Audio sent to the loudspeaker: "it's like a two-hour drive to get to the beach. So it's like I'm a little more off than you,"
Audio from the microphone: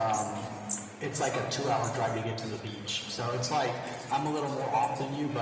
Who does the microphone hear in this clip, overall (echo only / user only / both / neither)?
echo only